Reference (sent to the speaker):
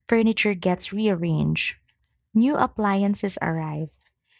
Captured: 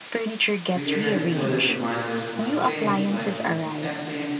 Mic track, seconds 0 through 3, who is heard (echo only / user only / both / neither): both